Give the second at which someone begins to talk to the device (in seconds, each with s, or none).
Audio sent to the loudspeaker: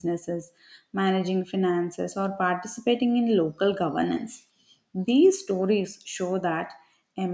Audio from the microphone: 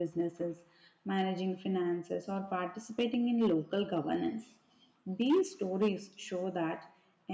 none